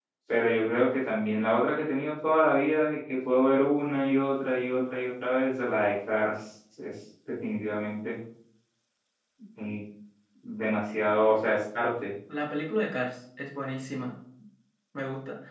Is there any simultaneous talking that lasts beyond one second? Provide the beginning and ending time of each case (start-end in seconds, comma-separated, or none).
none